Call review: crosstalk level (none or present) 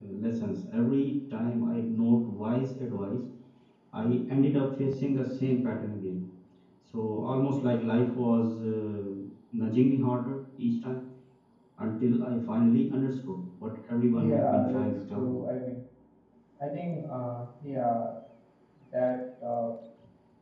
present